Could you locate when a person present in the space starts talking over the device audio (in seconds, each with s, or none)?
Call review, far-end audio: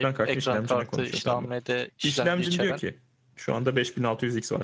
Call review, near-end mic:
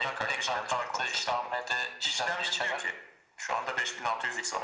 none